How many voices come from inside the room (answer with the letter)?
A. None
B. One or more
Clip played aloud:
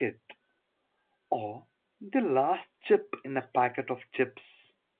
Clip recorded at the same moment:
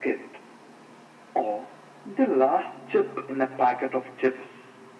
A